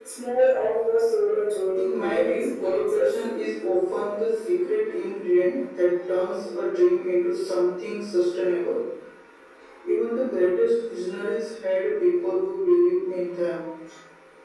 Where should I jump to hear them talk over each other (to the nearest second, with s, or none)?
2 s